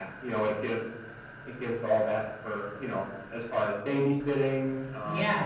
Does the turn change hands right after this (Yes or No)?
Yes